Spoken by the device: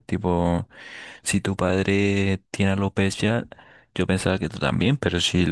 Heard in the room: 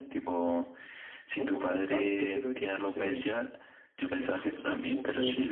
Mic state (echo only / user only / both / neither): both